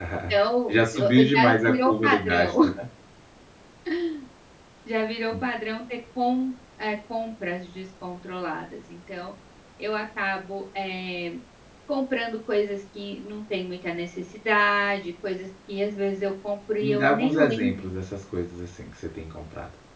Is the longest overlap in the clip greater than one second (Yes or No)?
Yes